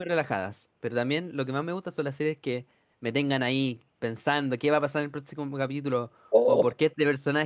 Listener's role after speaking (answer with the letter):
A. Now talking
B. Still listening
B